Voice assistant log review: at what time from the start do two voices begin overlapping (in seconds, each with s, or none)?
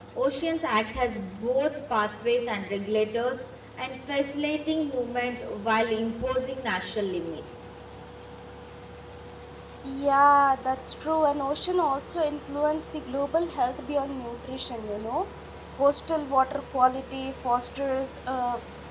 none